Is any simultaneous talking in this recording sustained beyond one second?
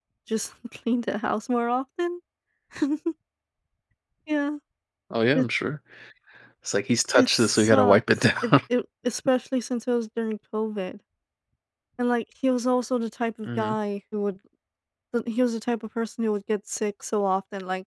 Yes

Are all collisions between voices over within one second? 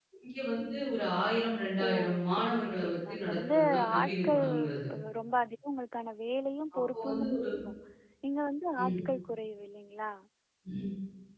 No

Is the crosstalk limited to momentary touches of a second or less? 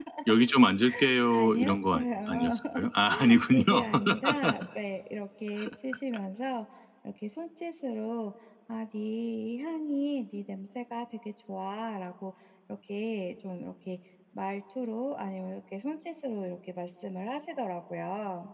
No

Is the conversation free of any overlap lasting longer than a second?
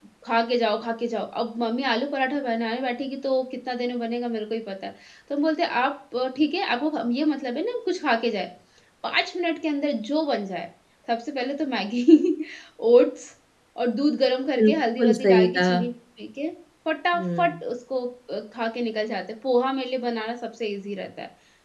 No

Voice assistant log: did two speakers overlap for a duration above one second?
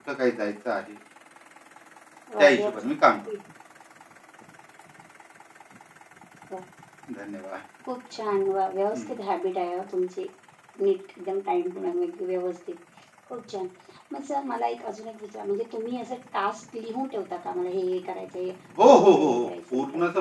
Yes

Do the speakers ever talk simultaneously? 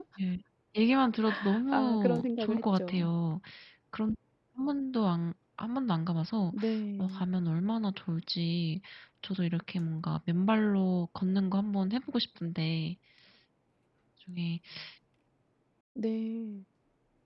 Yes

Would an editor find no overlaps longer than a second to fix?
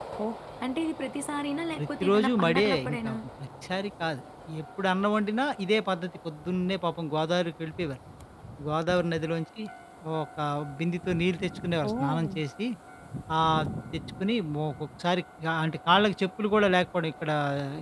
No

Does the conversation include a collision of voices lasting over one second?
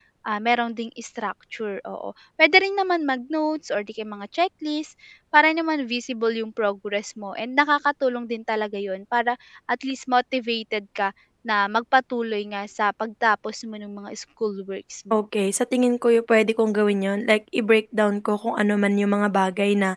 No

